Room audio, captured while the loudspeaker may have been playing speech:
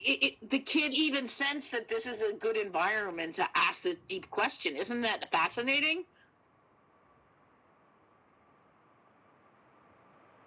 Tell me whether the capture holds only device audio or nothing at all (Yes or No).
Yes